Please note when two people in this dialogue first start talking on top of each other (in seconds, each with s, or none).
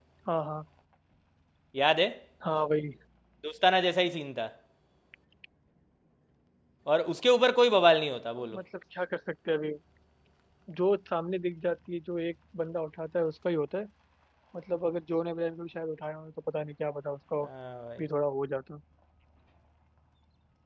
none